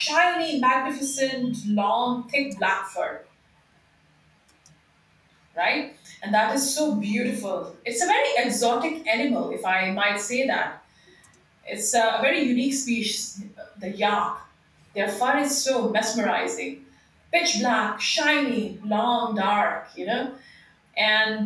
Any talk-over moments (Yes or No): No